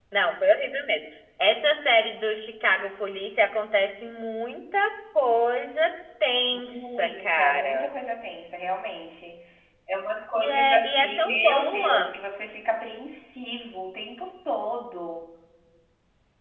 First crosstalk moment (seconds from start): 6.5 s

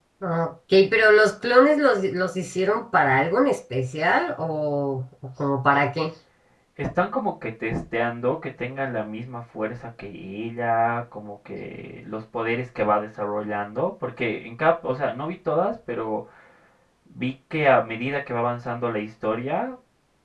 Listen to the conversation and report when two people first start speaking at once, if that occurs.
none

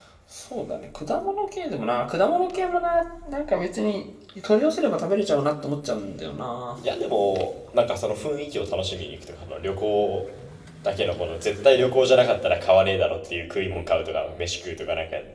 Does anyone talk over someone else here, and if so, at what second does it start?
none

